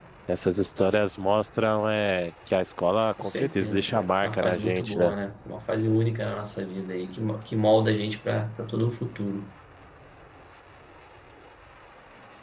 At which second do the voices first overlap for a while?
3.2 s

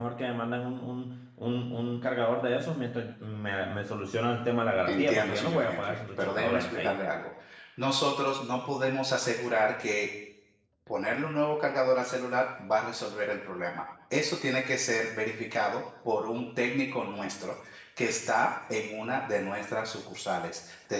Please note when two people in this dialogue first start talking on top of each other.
4.9 s

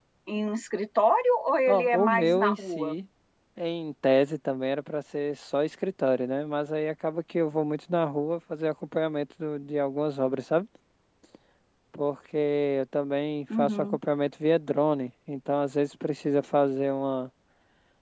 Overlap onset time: 1.7 s

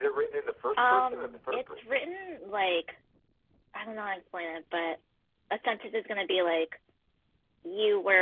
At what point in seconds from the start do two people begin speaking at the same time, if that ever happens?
0.8 s

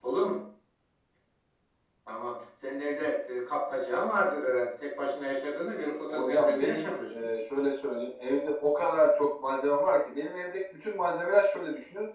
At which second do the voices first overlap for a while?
6.0 s

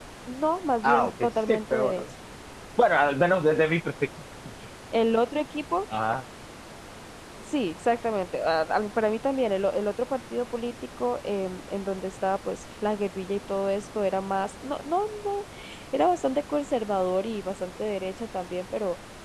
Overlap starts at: 0.8 s

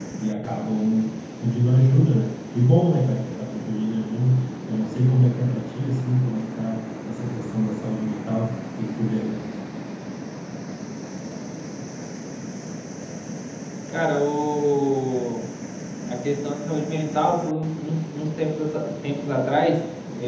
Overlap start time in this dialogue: none

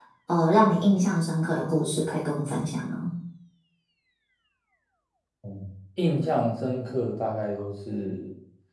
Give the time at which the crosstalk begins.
none

